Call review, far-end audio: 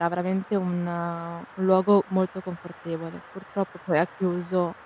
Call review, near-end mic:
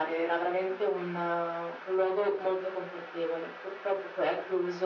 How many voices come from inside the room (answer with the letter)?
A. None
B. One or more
A